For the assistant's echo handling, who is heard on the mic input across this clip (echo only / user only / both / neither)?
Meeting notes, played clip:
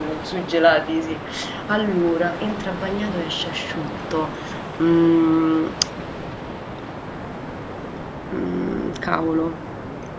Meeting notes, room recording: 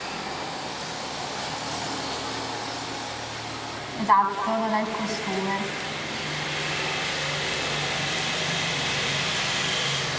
user only